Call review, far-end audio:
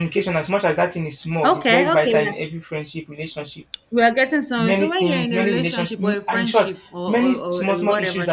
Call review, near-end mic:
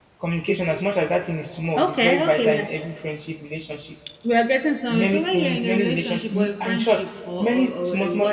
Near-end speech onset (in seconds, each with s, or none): none